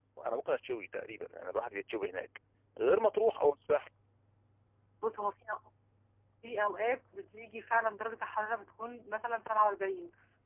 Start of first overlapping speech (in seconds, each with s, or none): none